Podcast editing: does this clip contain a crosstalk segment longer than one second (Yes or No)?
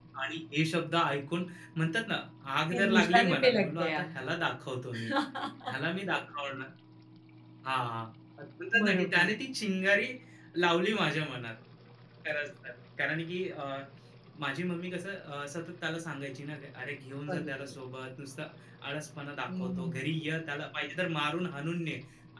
Yes